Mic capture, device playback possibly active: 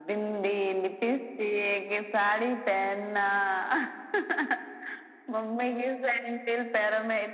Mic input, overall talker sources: echo only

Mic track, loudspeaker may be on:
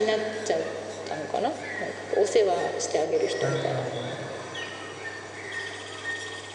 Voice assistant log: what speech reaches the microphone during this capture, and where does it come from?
both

